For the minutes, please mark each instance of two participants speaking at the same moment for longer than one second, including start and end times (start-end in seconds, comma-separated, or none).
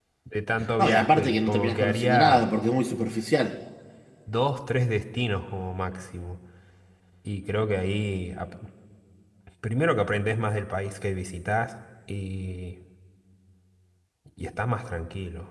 0.8-2.4